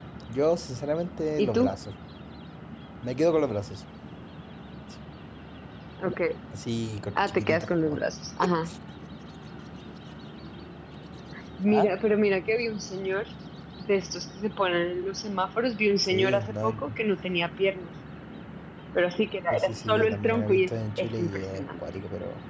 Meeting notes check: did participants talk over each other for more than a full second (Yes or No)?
Yes